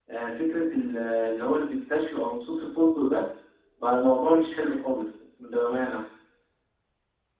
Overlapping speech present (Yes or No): No